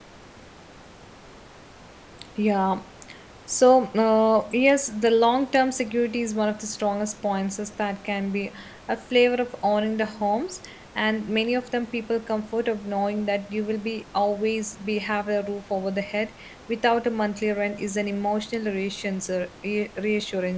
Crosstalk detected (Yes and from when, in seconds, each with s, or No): No